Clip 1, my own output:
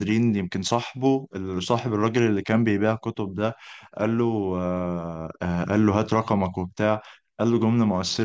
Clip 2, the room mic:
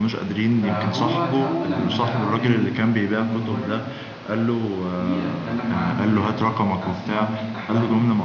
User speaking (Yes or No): Yes